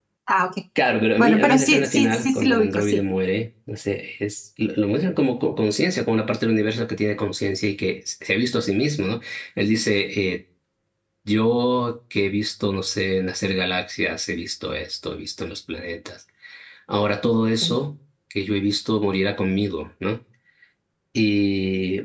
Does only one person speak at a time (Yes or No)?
No